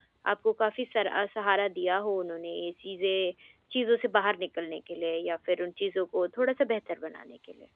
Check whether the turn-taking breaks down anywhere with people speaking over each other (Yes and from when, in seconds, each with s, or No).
No